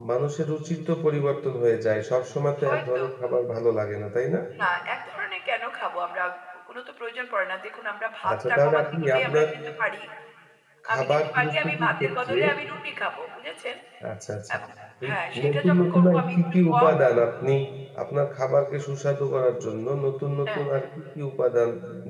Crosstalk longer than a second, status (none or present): present